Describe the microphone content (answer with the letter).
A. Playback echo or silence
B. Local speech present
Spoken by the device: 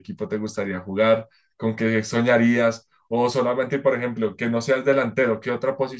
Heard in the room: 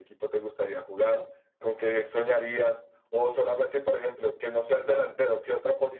A